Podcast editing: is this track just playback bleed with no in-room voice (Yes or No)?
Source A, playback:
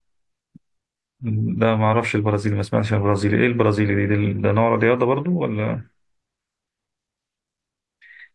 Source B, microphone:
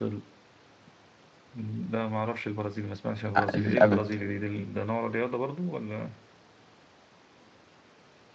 No